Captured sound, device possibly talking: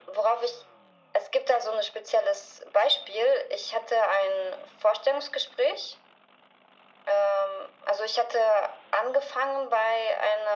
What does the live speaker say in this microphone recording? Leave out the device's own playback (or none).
none